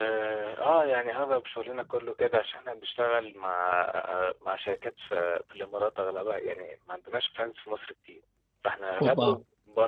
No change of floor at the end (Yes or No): Yes